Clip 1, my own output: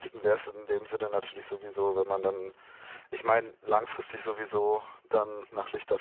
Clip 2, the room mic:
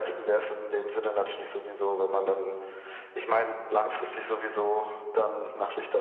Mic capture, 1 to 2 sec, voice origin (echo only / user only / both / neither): echo only